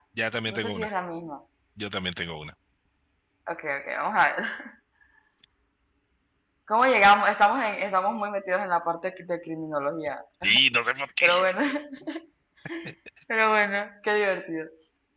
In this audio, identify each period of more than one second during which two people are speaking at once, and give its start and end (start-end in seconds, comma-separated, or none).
none